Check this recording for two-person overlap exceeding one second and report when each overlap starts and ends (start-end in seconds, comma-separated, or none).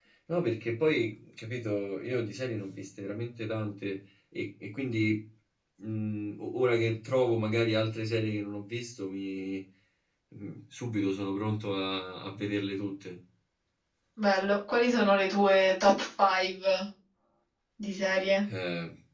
none